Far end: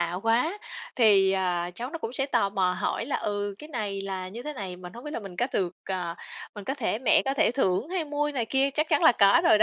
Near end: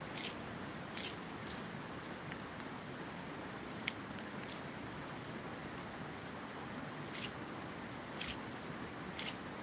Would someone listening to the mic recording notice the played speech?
No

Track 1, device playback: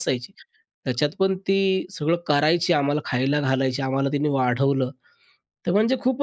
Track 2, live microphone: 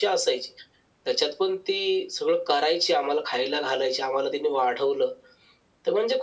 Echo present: Yes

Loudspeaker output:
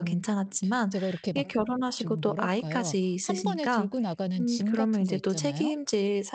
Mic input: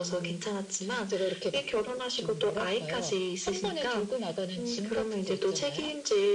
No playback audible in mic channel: No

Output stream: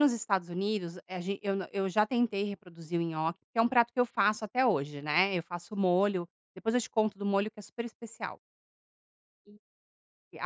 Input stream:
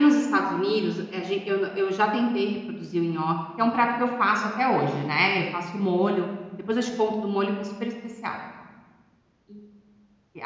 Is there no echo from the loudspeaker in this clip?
No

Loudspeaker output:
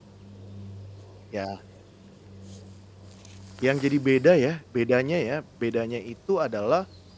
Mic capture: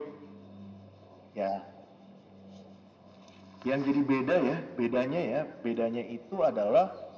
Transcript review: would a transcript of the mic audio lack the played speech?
No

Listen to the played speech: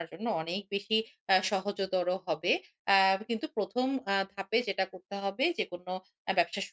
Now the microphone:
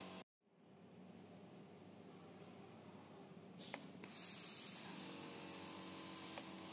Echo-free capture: Yes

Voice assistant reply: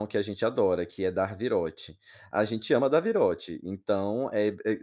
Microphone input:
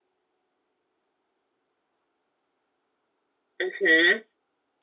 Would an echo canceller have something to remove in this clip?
No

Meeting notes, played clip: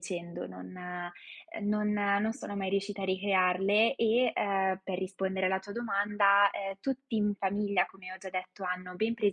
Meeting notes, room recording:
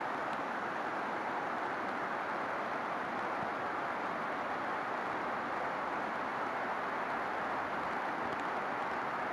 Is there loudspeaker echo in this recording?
No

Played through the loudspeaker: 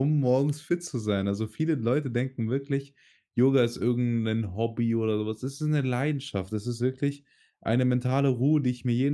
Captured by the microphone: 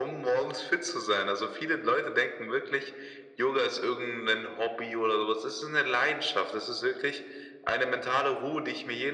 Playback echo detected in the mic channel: Yes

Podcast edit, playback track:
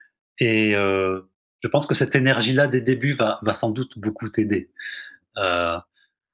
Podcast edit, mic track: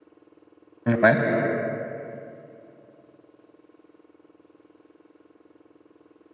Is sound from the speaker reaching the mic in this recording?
No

